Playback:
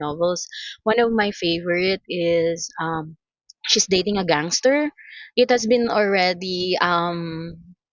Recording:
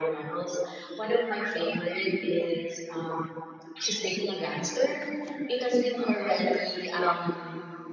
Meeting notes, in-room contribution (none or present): none